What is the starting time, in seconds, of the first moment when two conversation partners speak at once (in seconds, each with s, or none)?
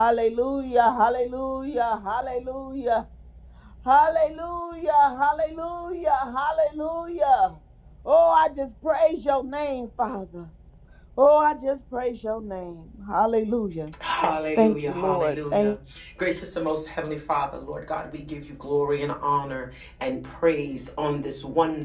14.6 s